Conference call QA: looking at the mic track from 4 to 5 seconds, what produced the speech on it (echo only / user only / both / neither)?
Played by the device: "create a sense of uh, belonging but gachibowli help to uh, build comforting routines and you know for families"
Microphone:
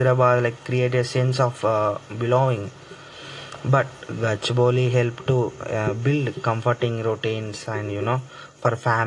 echo only